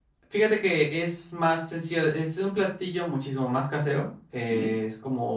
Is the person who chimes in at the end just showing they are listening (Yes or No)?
Yes